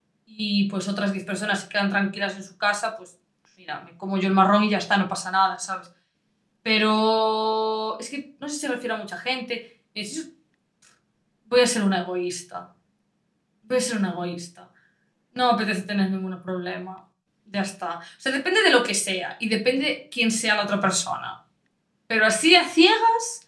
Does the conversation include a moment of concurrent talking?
No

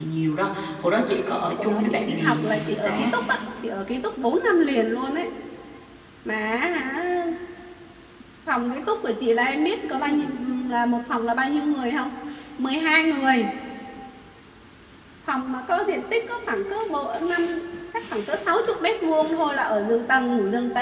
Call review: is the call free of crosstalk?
No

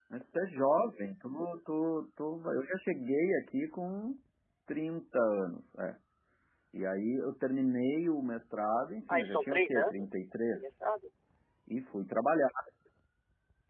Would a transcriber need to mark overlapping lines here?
Yes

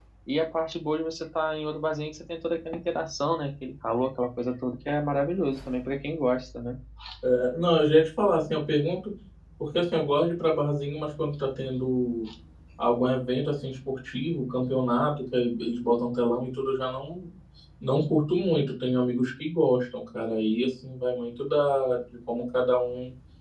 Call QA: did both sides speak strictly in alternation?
Yes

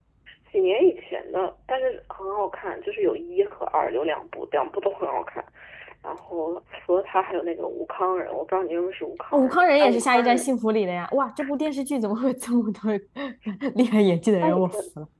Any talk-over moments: Yes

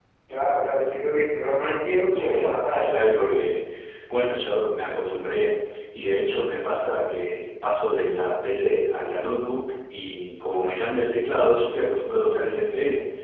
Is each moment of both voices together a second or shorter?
No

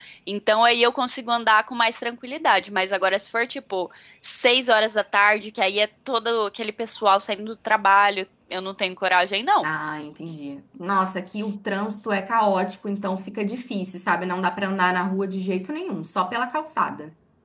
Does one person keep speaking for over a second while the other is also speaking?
No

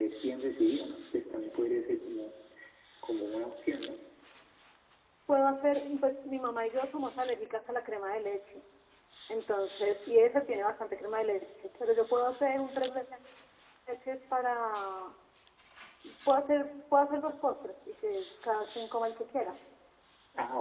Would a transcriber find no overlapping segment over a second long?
Yes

